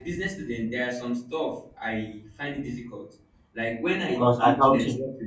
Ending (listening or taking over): listening